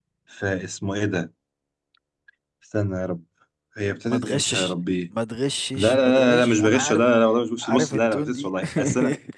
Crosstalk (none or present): present